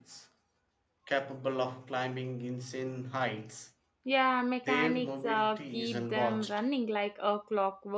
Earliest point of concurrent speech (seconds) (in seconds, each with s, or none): 4.7 s